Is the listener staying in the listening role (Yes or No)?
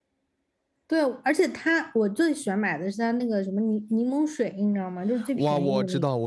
No